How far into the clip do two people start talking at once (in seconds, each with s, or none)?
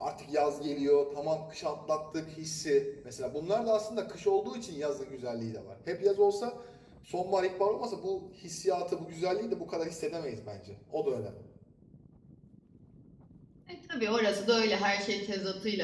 none